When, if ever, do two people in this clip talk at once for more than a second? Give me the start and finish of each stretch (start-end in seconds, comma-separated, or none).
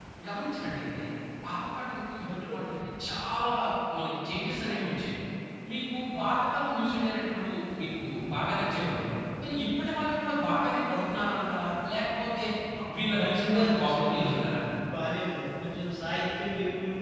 13.0-14.4